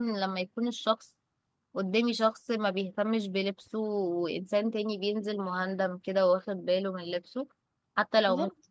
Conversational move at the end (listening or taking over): listening